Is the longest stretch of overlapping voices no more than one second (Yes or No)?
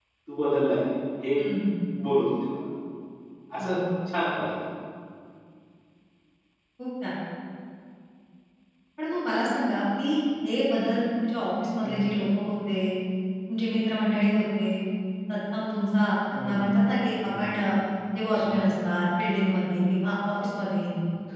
Yes